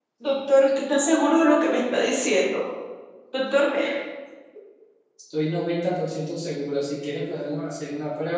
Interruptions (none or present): none